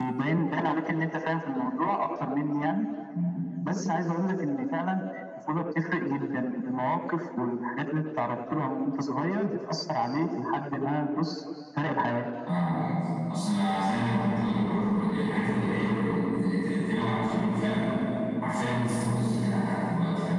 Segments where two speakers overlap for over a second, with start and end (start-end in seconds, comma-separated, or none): none